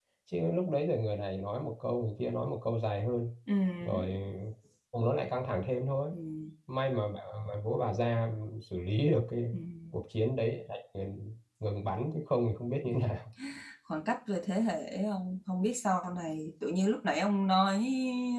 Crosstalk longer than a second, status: none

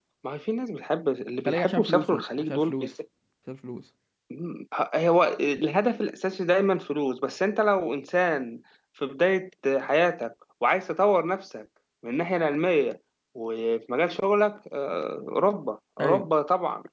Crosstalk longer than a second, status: present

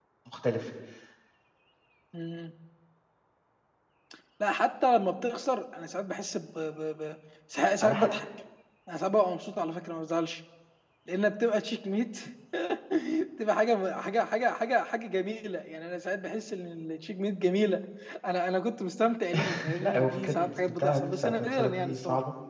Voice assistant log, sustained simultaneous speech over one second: present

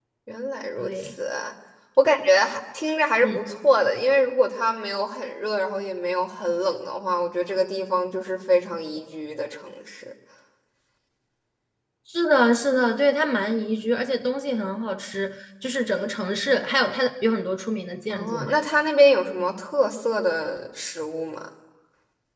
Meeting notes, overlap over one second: none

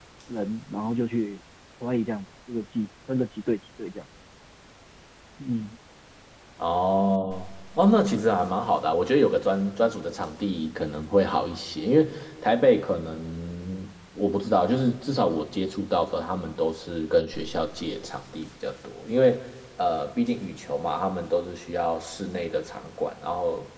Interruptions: none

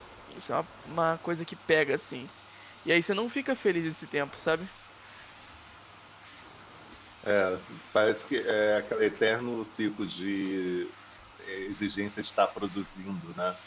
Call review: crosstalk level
none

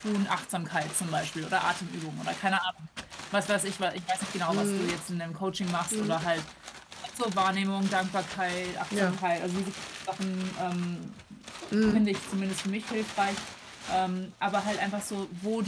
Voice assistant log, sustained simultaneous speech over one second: none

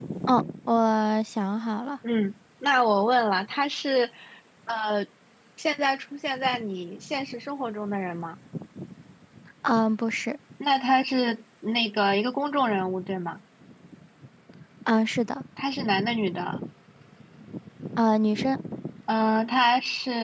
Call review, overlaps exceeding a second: none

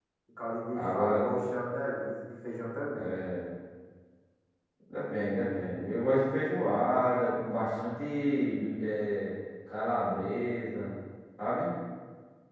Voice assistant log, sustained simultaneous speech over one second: none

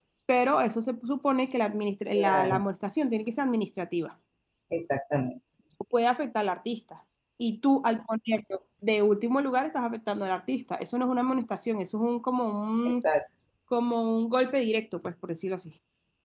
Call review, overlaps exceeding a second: none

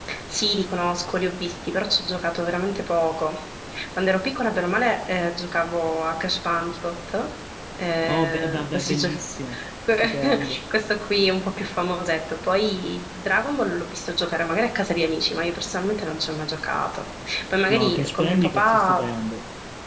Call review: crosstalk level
present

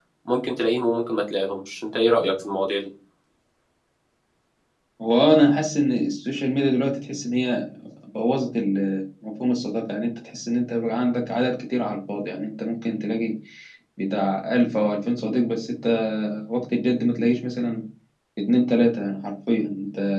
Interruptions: none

